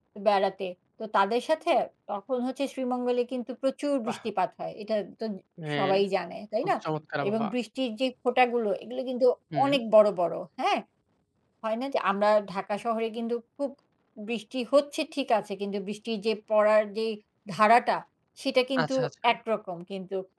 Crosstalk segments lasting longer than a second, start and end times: none

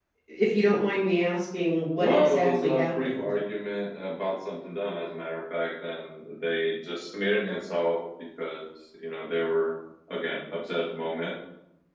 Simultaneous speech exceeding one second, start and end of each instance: 2.0-3.3

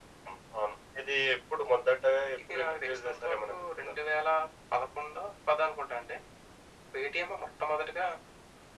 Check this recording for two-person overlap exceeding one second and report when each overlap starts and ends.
2.5-4.1

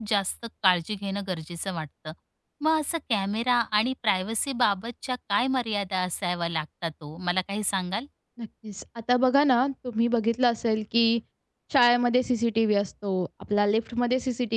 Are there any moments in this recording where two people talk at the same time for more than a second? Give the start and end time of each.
none

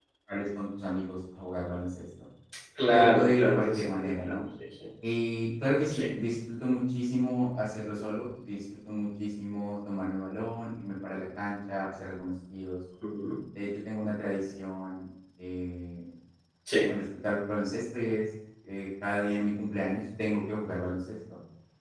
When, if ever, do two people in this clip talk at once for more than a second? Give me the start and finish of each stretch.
2.9-4.4

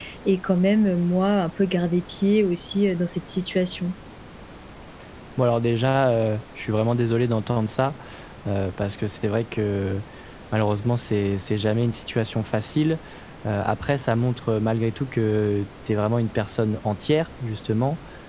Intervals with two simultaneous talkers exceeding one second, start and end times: none

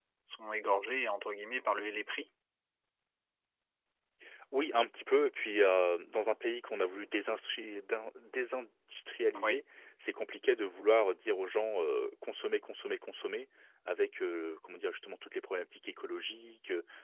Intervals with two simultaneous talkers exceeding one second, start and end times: none

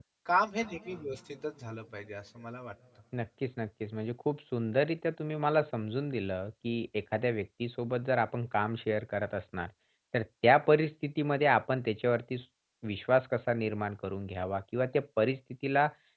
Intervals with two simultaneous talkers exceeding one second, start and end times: none

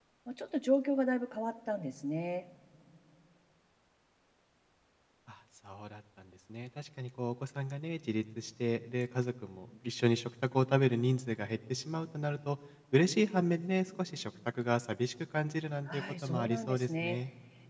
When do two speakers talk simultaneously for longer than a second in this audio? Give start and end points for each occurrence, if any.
15.9-17.2

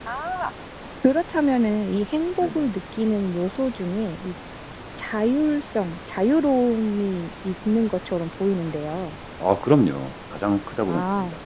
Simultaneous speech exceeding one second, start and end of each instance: none

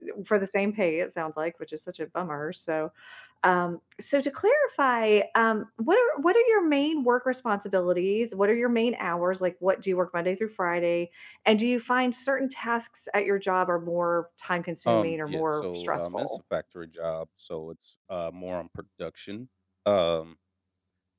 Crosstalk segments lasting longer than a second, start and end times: 14.9-16.3

